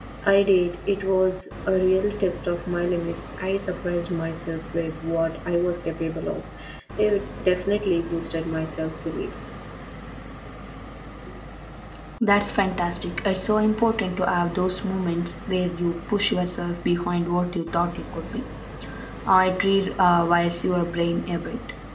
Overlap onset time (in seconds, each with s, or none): none